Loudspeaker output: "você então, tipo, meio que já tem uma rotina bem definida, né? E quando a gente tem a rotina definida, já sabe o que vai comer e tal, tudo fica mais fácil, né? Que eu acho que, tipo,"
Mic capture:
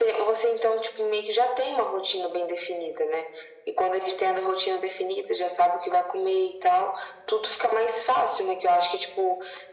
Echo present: Yes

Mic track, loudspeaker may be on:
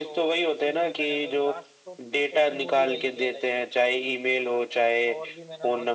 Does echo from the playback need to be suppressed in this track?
Yes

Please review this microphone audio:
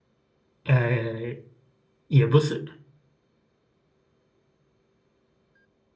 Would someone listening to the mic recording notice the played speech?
No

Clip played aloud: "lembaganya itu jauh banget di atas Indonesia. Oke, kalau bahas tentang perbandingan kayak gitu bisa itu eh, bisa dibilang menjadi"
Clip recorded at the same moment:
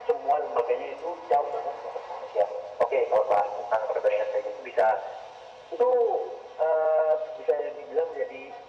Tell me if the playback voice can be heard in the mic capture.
Yes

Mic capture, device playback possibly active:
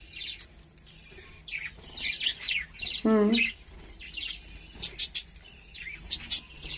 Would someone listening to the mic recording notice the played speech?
No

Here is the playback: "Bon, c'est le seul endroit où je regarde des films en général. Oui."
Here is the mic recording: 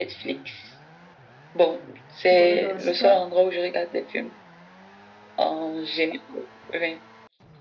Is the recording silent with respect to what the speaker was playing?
No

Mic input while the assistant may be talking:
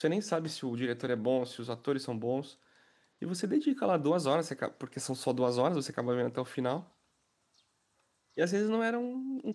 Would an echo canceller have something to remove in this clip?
No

